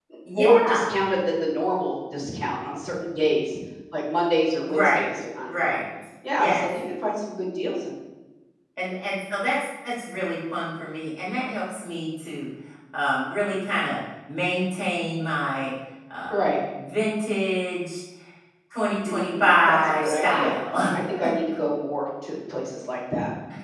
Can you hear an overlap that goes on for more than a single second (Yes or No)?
Yes